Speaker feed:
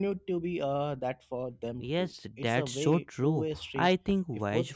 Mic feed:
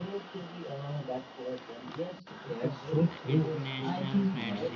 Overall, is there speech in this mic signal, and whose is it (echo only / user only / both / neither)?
both